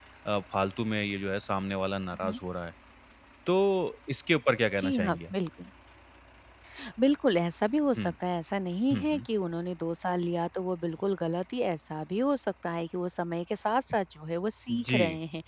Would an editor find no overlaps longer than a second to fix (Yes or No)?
Yes